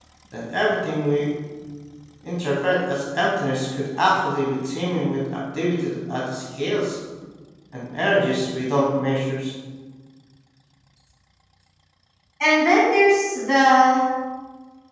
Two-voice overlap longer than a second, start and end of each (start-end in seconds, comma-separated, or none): none